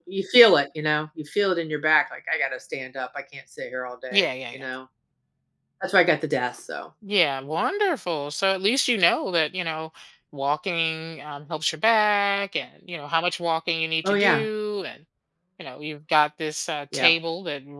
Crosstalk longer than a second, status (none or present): none